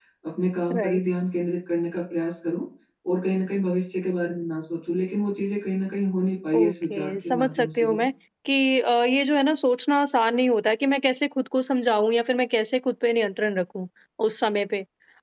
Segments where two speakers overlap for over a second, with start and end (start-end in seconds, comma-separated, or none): 6.5-8.0